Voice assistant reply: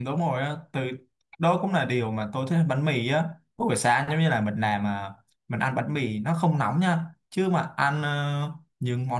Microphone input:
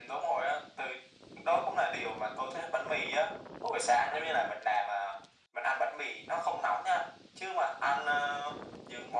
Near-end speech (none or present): none